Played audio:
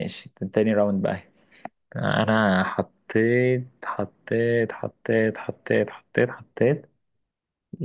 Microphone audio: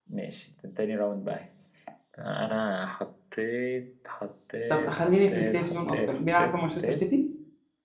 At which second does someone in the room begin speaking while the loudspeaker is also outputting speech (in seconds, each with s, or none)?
4.7 s